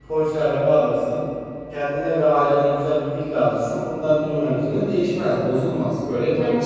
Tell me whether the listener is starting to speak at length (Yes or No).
Yes